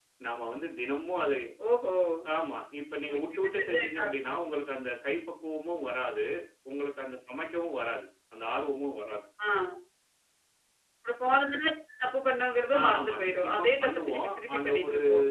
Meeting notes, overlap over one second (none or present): present